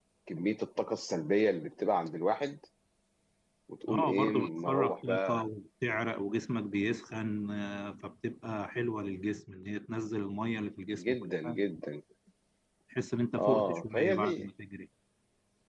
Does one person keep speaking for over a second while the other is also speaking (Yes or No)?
Yes